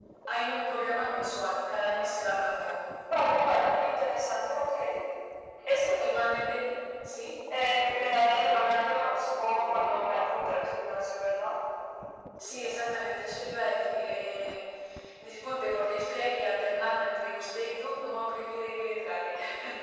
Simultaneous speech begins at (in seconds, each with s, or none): none